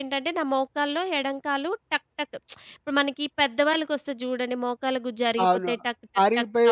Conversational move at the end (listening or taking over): taking over